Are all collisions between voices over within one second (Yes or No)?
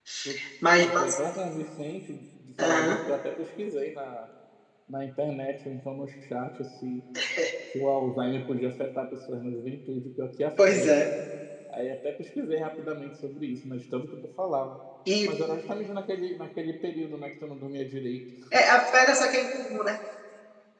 Yes